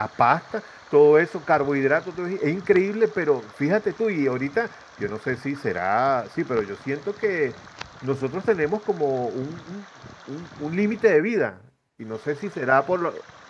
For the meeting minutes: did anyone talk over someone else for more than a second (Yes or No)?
No